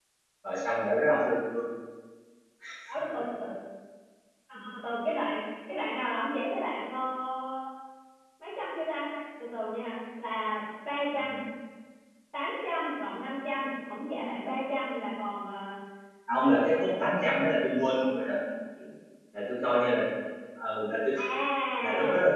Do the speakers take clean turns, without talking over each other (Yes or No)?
No